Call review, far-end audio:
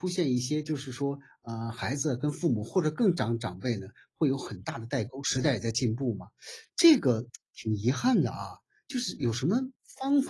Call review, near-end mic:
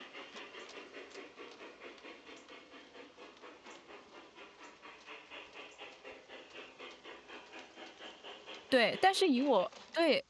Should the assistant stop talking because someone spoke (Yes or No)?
Yes